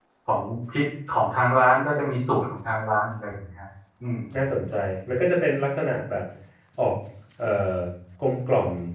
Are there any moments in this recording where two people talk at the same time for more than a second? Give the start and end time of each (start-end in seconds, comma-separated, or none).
none